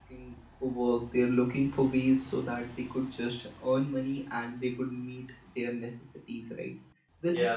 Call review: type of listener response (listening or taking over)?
listening